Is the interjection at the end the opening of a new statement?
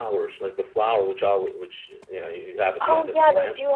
Yes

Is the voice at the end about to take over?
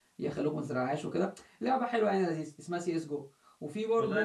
Yes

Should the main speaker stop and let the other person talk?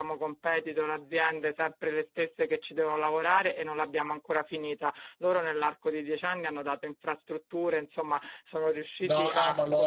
Yes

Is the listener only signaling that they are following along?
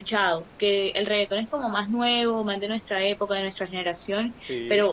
Yes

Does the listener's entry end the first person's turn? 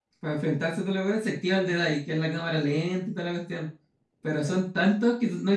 No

